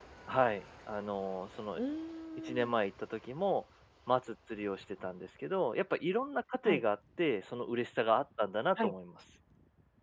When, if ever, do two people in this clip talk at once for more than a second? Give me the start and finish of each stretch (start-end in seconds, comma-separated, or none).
none